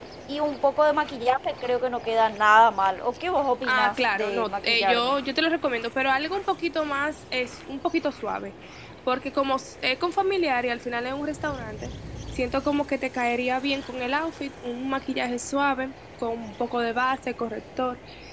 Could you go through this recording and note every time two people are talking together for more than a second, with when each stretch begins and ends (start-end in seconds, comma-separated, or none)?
3.6-5.1